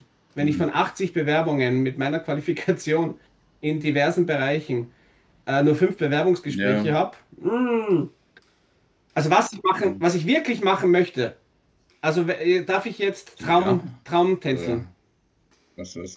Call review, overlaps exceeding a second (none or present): none